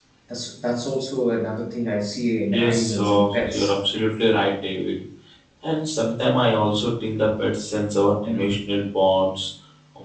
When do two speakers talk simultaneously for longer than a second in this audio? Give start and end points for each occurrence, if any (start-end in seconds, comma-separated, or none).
2.5-3.7